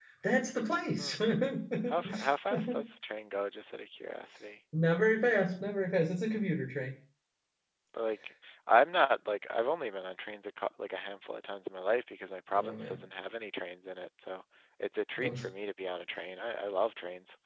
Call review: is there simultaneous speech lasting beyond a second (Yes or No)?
No